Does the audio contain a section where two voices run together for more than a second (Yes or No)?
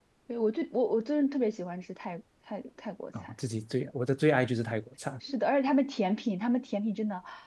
No